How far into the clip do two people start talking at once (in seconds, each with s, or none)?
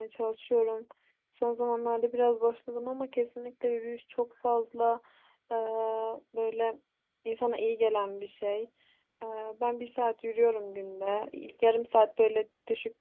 none